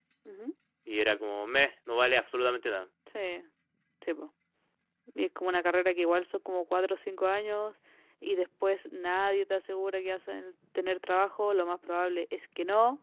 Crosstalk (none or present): none